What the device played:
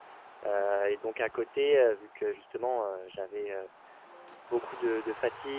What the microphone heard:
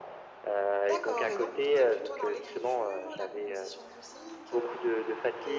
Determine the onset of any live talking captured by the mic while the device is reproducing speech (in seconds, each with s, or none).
0.8 s